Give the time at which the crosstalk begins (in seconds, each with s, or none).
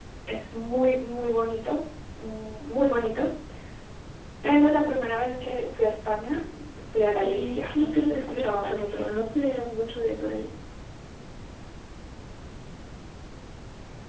7.2 s